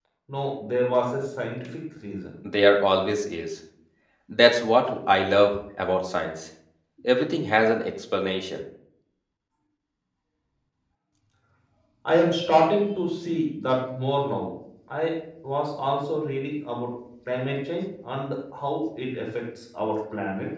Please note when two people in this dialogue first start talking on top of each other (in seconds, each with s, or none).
none